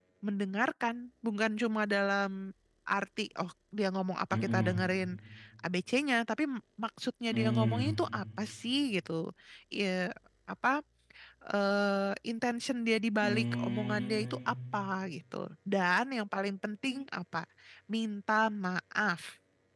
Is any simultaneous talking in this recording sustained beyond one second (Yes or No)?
Yes